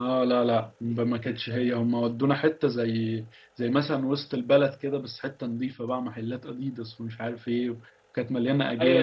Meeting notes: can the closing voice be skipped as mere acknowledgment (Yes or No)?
No